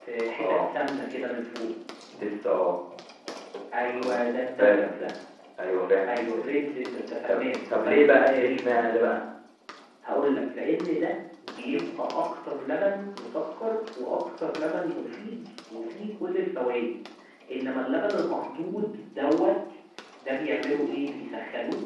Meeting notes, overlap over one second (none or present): present